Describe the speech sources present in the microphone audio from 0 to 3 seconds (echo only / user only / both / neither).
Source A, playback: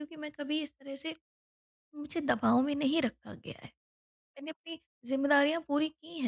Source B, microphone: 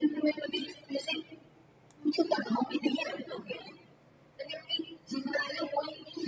echo only